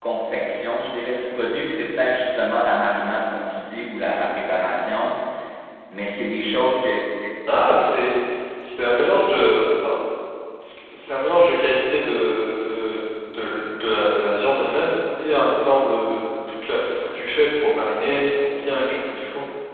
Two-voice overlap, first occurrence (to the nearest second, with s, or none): none